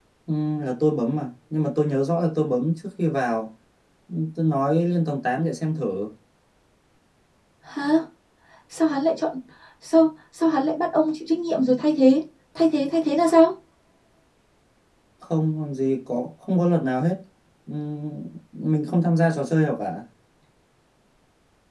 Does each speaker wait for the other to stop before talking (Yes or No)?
Yes